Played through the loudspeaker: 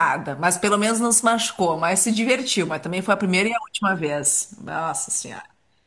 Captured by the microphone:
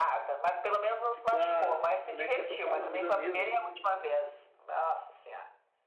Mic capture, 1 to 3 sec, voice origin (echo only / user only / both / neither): both